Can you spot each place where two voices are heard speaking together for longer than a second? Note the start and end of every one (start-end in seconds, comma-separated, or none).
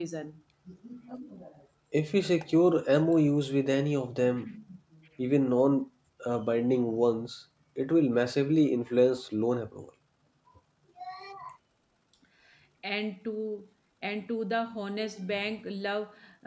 none